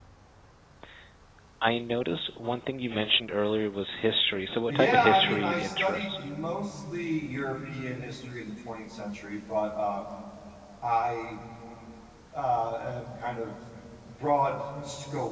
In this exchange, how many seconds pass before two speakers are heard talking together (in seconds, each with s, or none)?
4.7 s